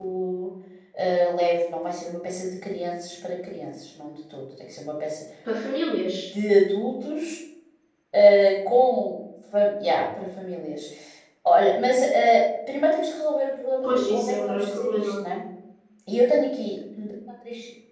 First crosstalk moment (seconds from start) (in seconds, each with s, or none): 13.8 s